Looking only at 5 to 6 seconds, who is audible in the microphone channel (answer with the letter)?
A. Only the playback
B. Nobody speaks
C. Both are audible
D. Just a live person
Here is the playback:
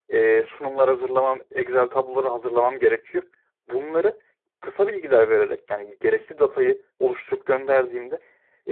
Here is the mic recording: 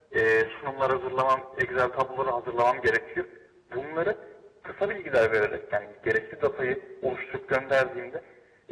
A